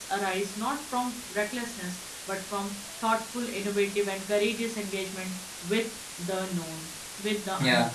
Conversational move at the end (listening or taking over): taking over